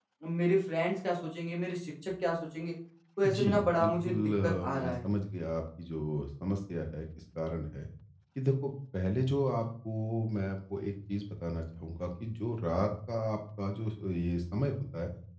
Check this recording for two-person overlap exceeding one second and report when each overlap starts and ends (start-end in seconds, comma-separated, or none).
3.4-5.0